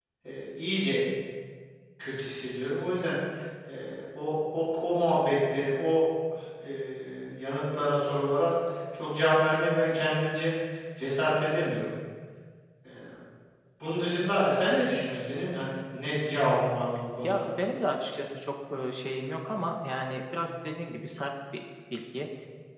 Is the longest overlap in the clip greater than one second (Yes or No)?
No